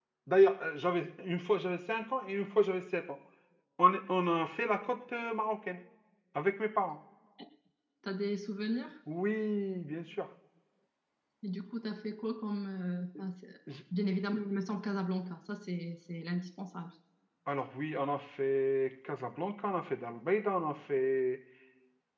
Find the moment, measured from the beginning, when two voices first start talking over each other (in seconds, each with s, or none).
none